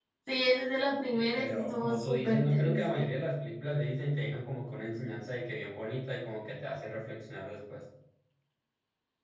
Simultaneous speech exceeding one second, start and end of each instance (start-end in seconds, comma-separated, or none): 1.1-3.0